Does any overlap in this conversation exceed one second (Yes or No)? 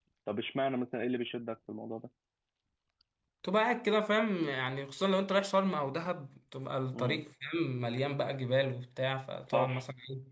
No